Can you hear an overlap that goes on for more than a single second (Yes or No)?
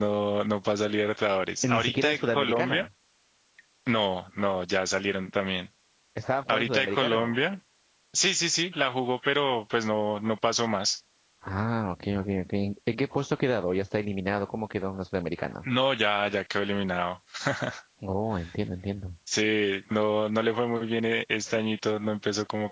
Yes